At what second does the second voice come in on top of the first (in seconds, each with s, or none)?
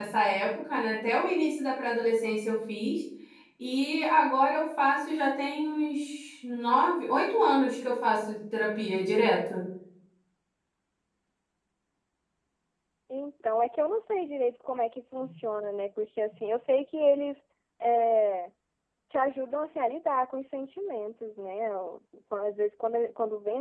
none